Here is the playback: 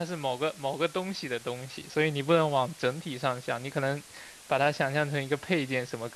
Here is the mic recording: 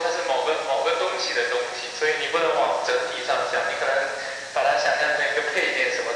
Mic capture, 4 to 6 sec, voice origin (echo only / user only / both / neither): echo only